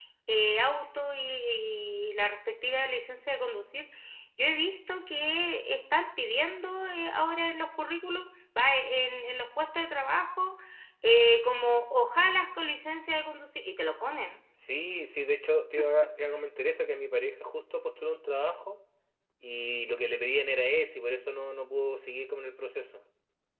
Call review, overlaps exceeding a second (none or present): none